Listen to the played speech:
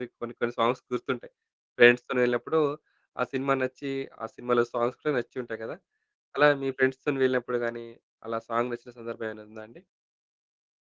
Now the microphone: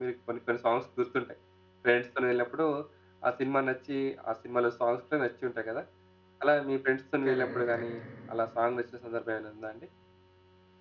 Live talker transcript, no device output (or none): కరెక్ట్. కరెక్ట్.